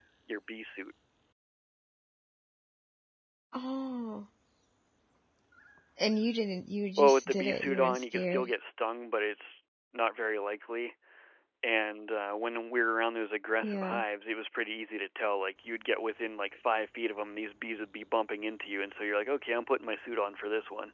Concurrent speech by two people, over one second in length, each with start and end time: 7.0-8.5

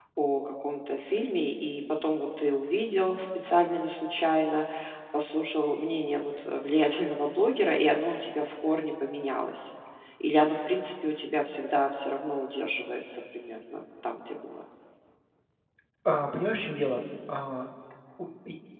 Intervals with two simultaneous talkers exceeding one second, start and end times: none

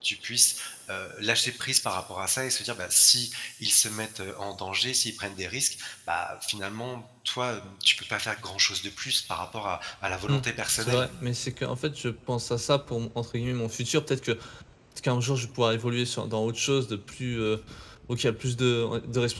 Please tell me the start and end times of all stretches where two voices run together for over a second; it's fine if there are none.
none

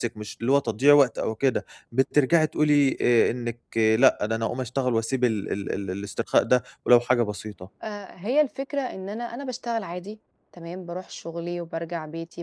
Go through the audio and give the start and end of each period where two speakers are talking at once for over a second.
none

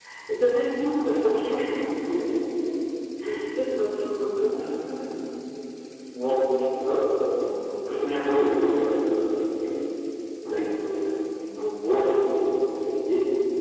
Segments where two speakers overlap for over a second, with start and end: none

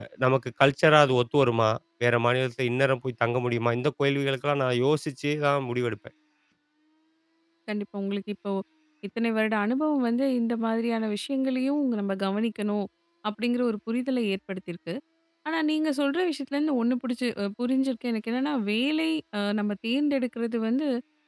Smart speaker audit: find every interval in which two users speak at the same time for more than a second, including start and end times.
none

